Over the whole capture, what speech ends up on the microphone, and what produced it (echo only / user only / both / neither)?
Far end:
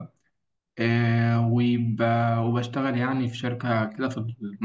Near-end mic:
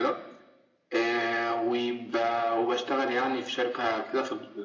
echo only